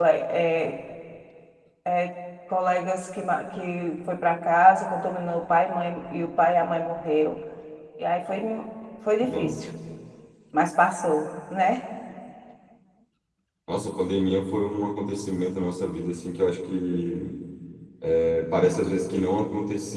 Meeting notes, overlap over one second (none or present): none